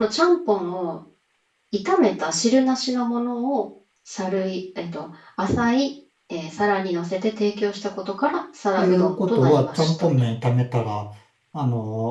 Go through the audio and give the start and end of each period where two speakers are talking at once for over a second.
8.8-10.1

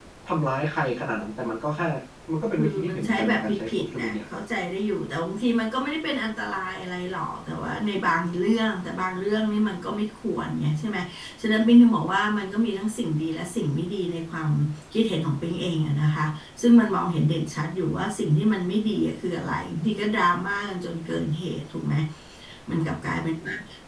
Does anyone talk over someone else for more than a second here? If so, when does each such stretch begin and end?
2.6-4.1

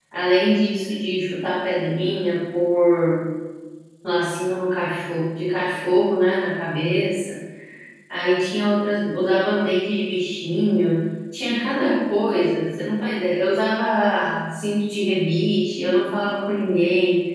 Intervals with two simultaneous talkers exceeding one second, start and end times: none

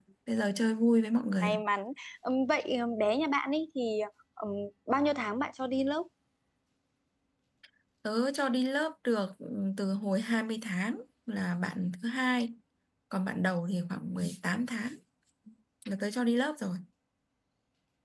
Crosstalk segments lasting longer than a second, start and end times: none

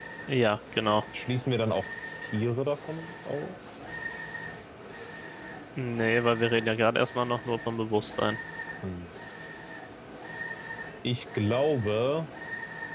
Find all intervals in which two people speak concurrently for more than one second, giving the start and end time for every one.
none

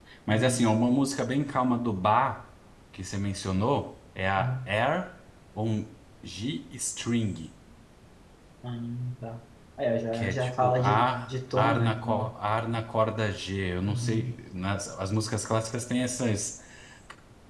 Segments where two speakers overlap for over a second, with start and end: 10.1-12.3

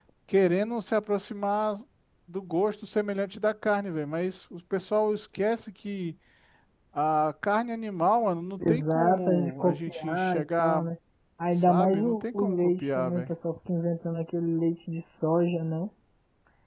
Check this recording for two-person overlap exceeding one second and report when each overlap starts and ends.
8.6-10.8, 11.5-13.3

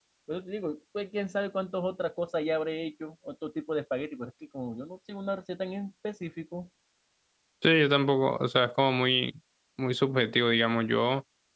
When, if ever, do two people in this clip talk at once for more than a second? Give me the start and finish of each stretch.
none

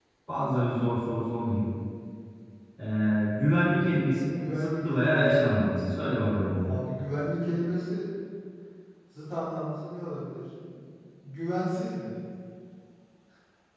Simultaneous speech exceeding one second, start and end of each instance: 4.4-5.6

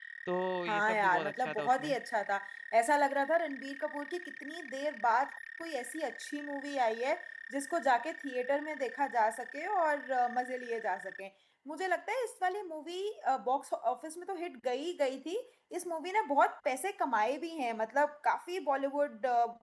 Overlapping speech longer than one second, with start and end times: 0.7-1.9

